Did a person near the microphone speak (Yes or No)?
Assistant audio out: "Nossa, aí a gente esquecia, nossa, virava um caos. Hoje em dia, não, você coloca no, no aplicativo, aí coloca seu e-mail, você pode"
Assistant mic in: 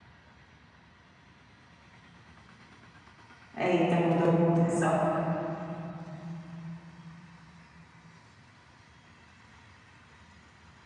Yes